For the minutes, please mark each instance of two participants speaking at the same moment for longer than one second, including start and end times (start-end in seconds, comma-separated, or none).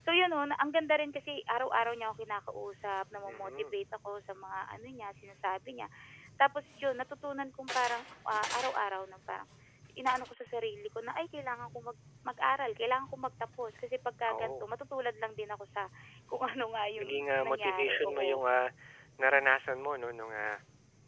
17.0-18.4